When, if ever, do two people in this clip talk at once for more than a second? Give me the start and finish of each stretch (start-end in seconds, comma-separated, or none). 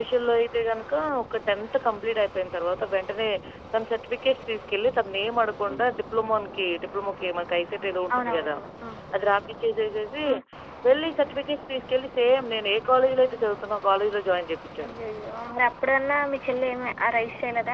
none